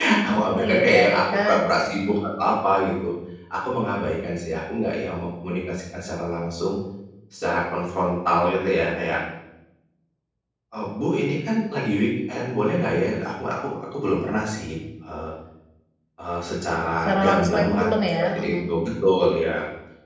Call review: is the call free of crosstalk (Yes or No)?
No